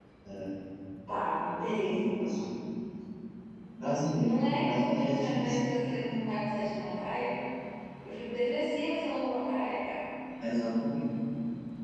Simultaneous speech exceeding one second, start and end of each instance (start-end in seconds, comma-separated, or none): 4.2-5.6